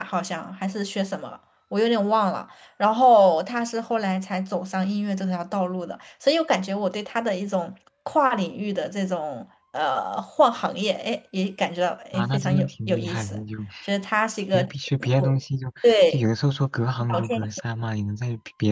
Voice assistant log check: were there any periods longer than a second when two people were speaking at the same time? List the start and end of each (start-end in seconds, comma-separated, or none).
12.1-13.4